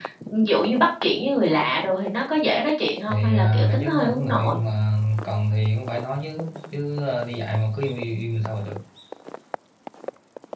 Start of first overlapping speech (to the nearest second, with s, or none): 3 s